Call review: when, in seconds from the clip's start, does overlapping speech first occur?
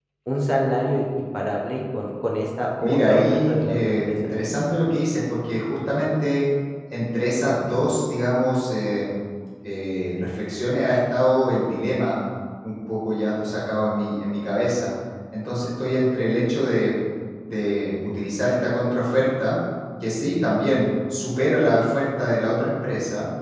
3 s

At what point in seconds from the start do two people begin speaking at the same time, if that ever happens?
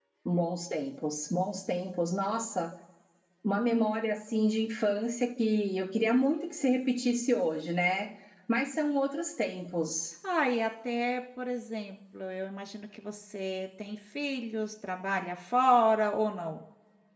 none

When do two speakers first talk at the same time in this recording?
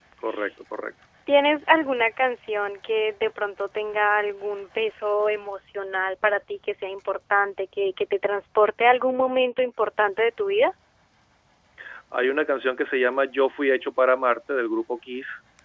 none

